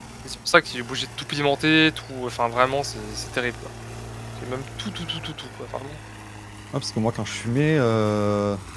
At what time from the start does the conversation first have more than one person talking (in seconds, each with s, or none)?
none